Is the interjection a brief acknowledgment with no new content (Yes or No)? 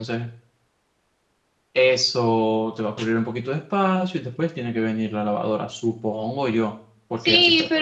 No